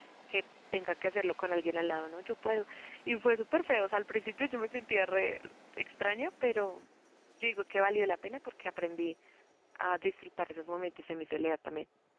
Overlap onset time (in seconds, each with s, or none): none